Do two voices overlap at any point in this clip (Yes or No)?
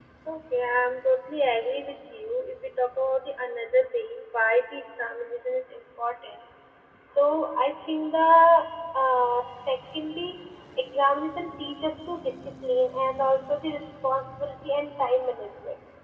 No